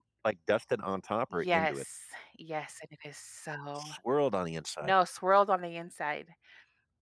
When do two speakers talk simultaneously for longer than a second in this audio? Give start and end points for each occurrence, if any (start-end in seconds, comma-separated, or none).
none